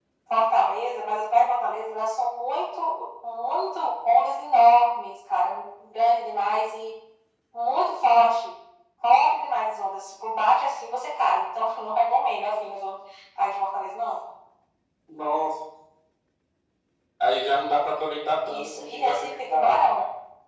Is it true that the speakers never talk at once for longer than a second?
No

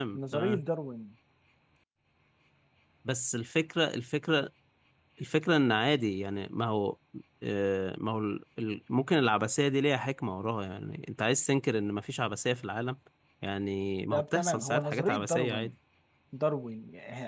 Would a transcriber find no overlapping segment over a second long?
No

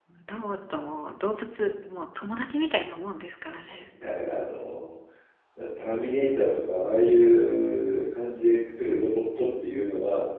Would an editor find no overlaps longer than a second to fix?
Yes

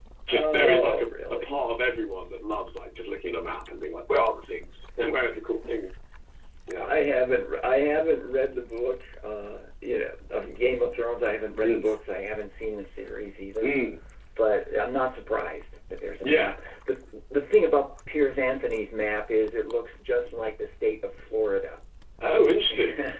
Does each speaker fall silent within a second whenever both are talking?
No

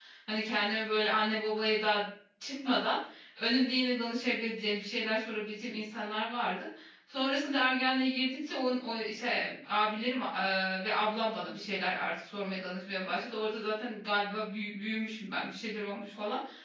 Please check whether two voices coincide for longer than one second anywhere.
No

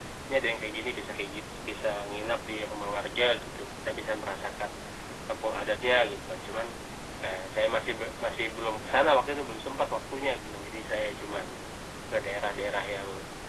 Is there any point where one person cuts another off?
No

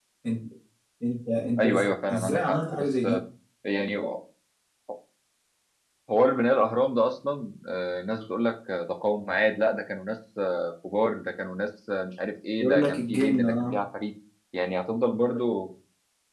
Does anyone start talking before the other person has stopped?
Yes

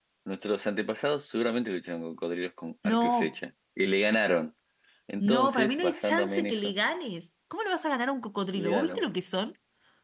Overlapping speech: Yes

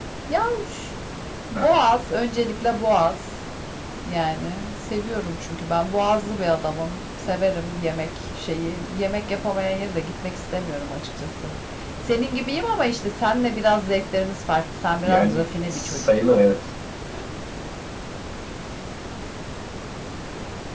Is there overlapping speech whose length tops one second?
Yes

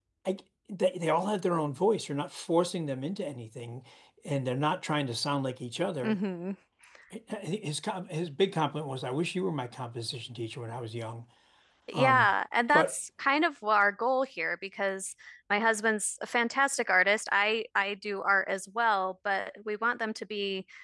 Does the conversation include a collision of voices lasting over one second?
No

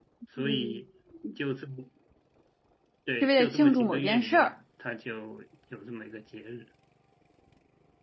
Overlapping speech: Yes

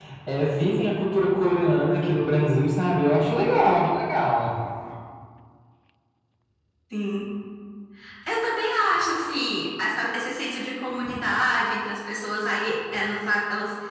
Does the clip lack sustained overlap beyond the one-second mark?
Yes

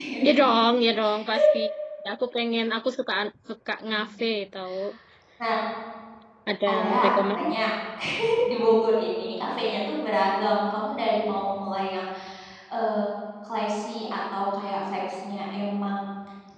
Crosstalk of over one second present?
No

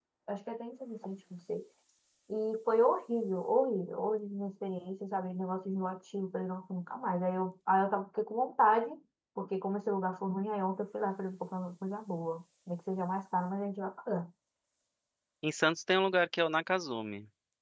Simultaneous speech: No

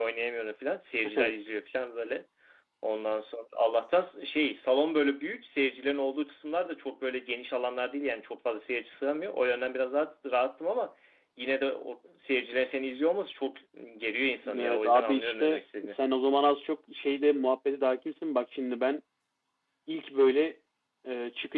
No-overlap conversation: No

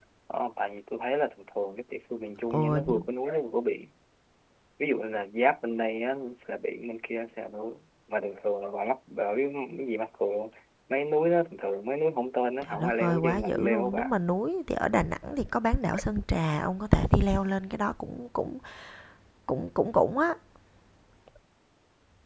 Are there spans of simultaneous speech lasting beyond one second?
Yes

